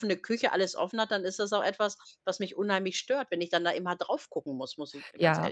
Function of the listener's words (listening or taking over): taking over